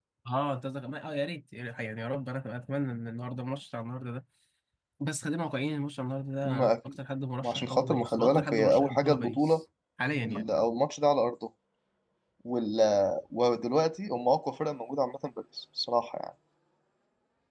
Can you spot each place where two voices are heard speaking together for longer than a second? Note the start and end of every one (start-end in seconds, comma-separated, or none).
7.4-9.6